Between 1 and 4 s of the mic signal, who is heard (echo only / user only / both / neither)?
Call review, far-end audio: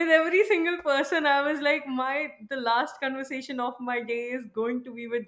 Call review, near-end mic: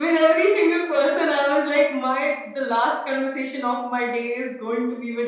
echo only